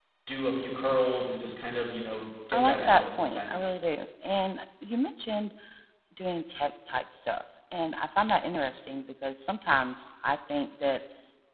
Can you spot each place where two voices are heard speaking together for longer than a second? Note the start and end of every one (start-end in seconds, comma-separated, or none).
2.5-3.7